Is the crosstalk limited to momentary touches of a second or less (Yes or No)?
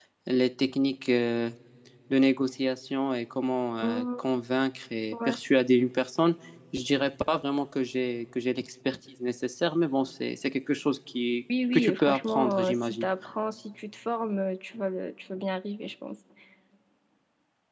No